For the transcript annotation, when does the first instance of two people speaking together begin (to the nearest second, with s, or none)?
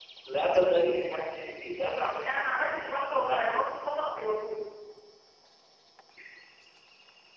2 s